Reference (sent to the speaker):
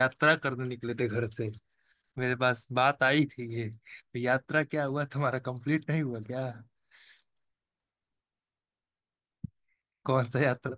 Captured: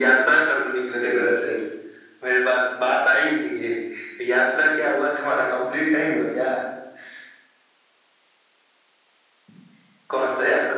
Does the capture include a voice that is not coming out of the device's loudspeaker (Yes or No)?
No